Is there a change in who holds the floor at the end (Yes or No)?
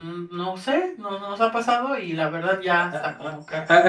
Yes